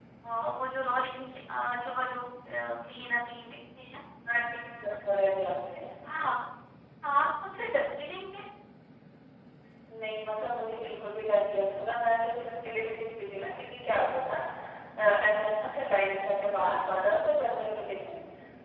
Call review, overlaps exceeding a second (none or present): none